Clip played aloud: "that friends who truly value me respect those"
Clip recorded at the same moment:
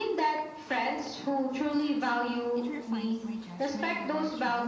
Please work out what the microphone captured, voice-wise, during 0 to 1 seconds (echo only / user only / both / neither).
echo only